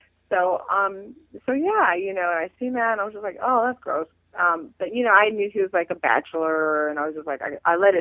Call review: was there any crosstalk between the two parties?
No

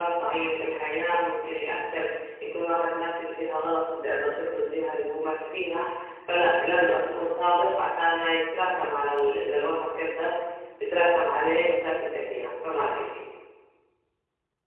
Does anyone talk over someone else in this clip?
No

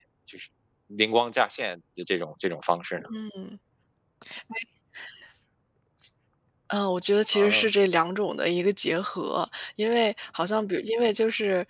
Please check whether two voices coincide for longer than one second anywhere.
No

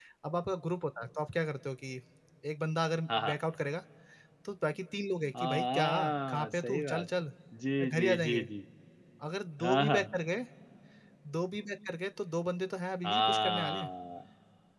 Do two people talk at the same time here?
Yes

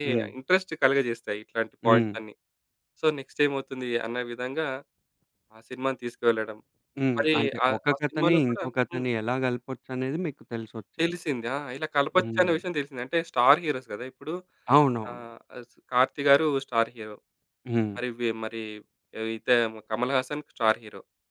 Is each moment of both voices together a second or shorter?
No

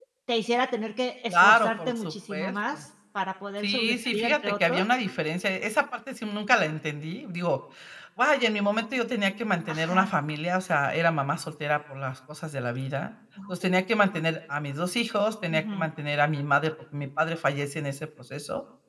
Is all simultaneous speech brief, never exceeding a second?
No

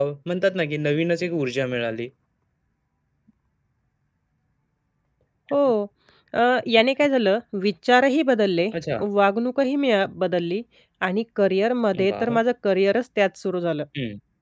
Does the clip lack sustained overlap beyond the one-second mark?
Yes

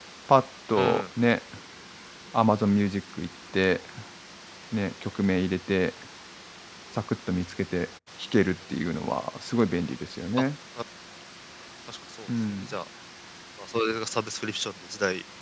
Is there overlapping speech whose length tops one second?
No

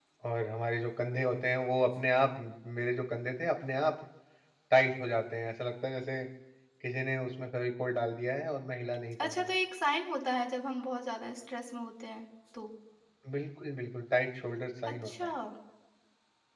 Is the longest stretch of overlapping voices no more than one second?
Yes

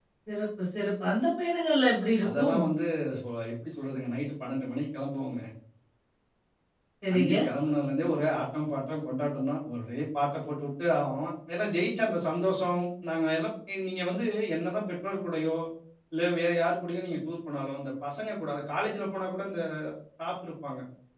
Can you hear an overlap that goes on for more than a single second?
No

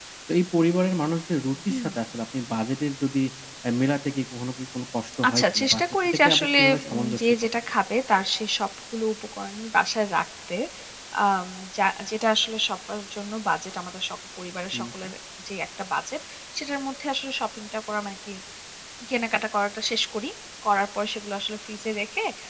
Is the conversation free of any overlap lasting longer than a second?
No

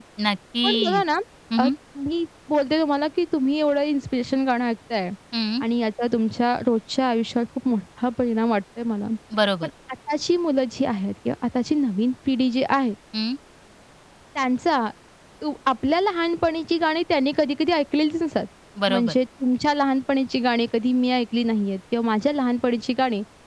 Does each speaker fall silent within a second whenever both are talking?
Yes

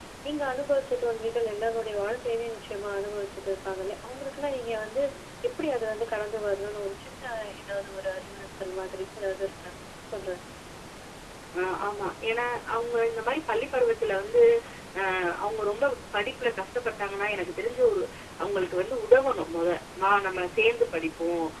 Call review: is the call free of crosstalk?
Yes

